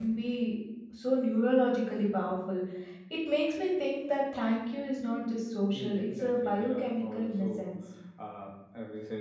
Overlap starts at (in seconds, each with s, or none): 5.7 s